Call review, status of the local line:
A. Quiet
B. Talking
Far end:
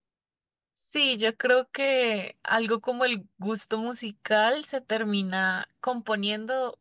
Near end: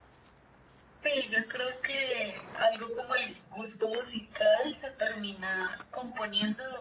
A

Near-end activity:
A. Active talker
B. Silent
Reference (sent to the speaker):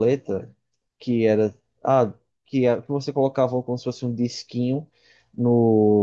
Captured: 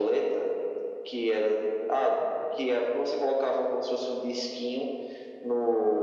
B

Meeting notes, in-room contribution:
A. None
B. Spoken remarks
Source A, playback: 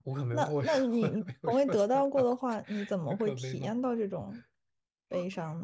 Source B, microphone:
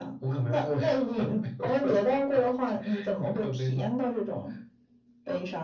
A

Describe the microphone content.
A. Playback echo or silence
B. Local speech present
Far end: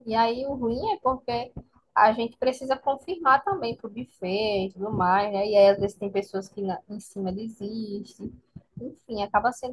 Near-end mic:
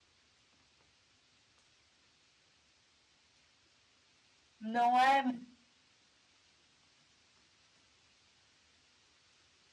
B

